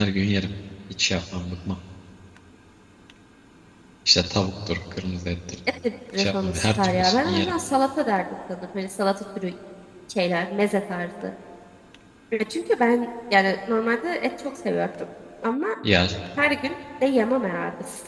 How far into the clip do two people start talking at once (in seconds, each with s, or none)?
6.2 s